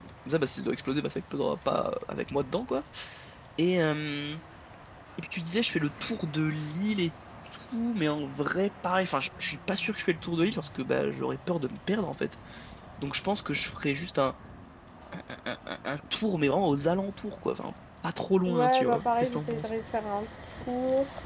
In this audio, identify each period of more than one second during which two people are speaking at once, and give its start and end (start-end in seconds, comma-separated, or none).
18.5-19.7